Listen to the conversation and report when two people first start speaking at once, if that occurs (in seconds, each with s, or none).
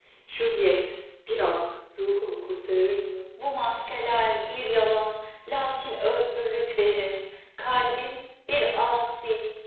none